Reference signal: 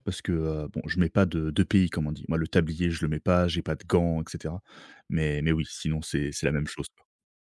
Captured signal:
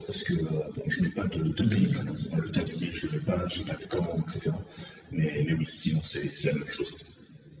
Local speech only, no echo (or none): Mmh